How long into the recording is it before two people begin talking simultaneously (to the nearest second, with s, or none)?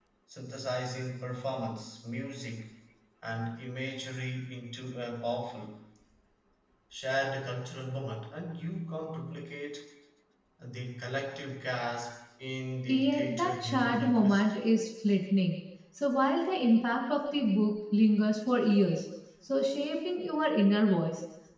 13 s